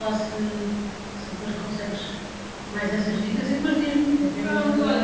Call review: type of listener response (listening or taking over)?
taking over